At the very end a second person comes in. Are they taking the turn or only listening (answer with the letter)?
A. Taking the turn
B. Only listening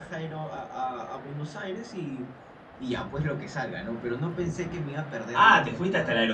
A